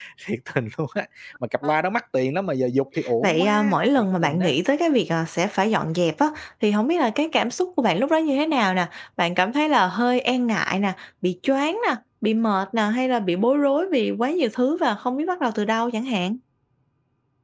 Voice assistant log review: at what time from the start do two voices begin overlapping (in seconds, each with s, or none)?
3.2 s